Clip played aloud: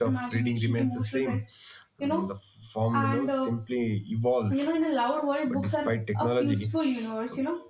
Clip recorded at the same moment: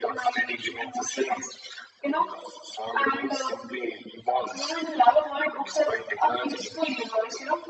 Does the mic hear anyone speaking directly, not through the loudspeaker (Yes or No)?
No